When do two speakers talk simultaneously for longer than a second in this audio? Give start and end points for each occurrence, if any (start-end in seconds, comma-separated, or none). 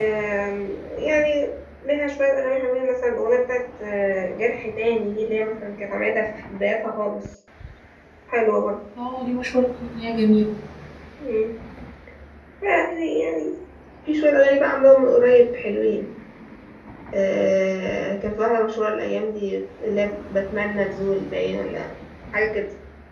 none